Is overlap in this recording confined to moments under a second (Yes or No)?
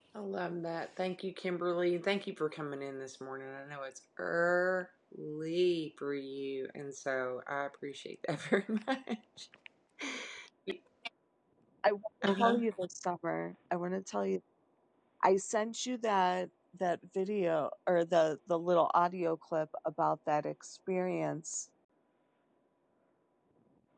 Yes